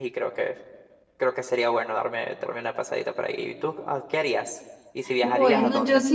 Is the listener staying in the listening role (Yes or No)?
No